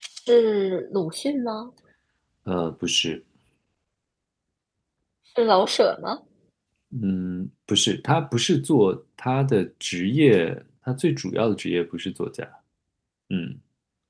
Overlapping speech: No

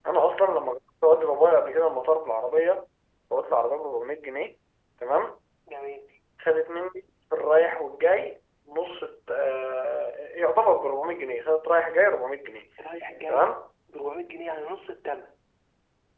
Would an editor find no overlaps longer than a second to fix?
Yes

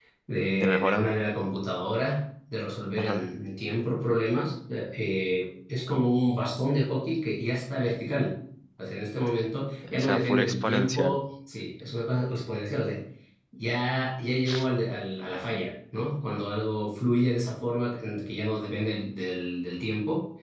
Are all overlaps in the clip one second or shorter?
No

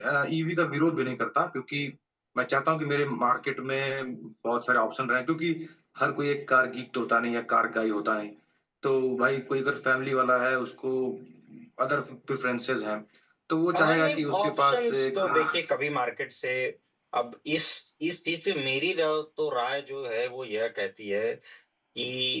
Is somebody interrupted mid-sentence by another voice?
Yes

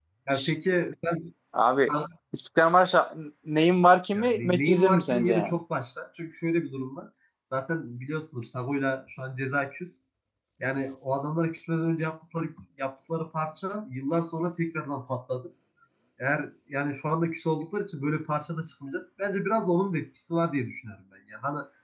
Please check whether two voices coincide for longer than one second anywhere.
Yes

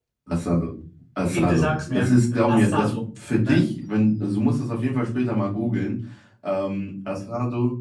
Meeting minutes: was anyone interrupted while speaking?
Yes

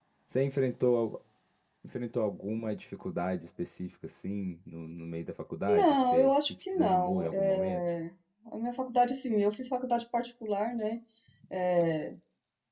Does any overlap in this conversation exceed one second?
Yes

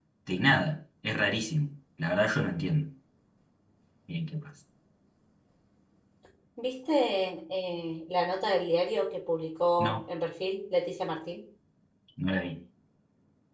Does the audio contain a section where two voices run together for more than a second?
No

